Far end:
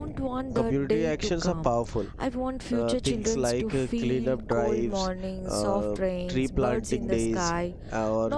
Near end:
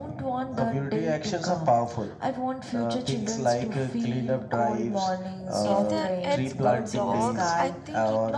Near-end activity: present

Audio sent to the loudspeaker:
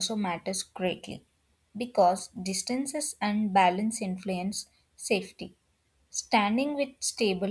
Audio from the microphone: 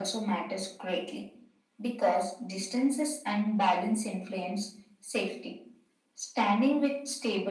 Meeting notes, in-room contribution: none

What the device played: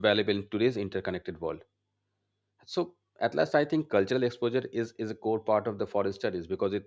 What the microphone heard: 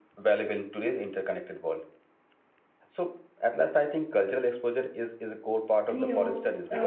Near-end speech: present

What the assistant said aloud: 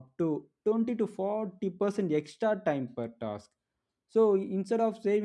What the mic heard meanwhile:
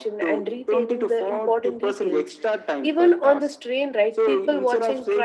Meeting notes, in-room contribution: present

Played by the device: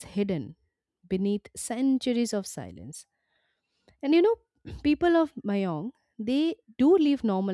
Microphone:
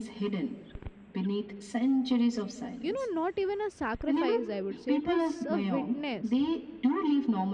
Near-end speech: present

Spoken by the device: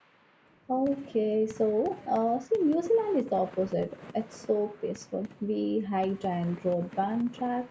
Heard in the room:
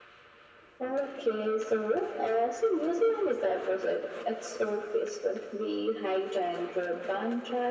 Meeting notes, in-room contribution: none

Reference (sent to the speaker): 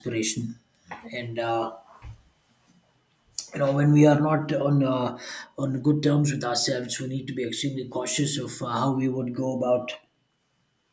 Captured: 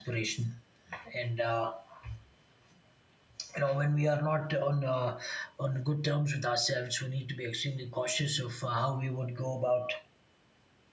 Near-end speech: none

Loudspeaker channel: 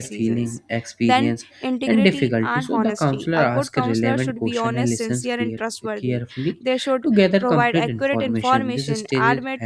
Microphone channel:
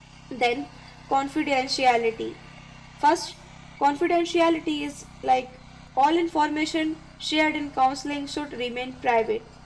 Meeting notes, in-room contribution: present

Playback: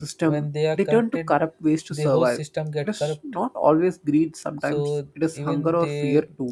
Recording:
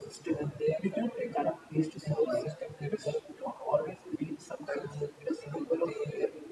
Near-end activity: none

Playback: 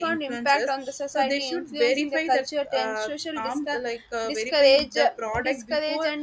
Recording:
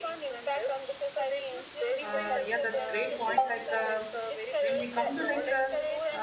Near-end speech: present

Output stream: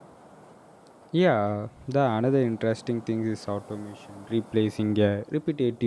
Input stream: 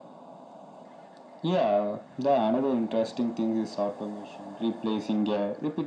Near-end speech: none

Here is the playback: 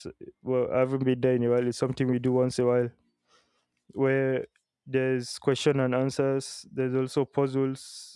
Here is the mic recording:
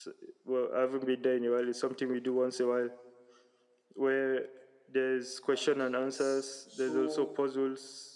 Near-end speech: present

